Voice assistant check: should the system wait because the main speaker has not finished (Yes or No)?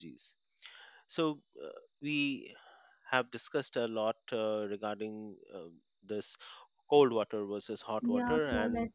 No